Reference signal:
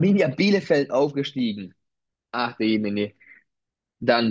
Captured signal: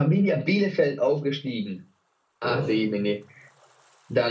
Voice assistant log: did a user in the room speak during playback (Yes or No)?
Yes